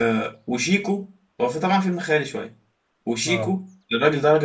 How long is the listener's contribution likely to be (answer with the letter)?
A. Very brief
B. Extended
A